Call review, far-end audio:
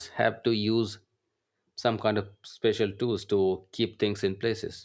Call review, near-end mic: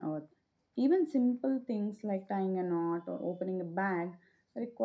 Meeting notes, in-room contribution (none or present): present